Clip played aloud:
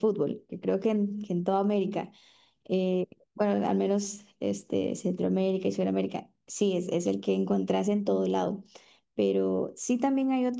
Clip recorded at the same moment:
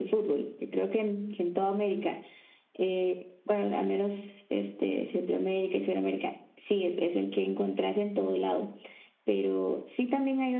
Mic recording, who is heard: echo only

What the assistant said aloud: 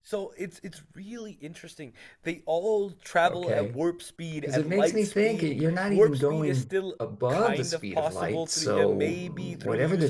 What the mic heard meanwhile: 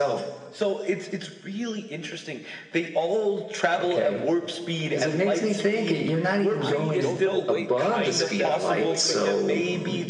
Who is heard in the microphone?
both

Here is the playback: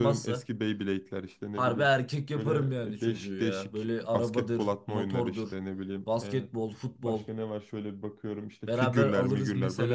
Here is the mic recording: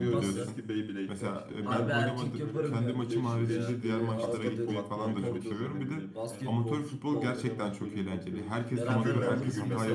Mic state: both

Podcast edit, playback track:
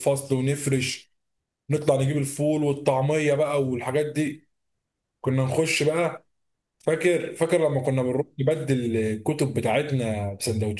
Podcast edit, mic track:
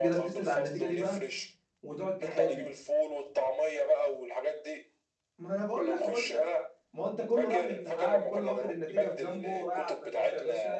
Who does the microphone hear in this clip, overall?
both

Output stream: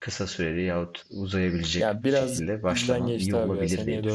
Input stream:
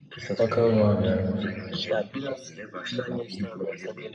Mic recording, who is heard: both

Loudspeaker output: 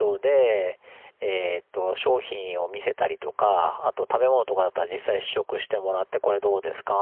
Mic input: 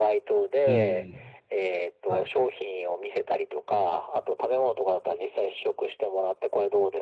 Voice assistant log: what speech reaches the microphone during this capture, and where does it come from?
both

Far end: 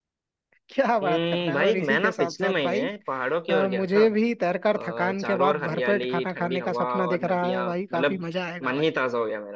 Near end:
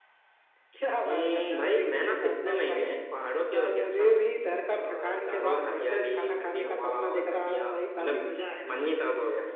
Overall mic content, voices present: echo only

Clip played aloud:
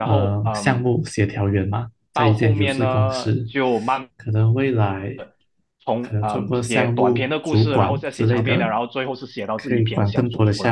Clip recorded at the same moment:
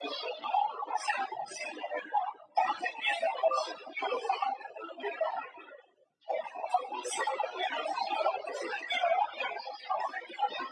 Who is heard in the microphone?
echo only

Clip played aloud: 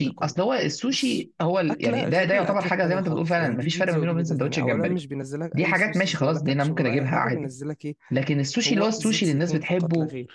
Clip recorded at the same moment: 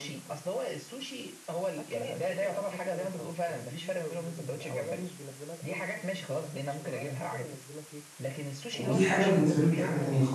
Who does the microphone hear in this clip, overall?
both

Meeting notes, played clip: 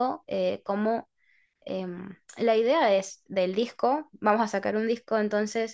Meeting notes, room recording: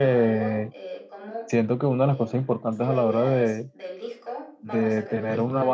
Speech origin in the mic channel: both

